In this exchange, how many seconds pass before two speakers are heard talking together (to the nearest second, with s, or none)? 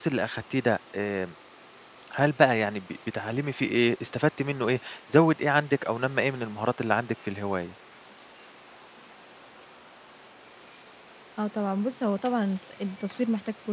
none